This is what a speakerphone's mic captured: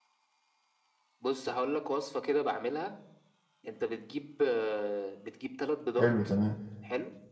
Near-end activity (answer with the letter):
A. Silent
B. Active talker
B